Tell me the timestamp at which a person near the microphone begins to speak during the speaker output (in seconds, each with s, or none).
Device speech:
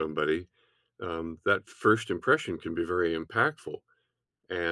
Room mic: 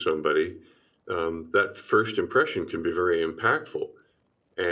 none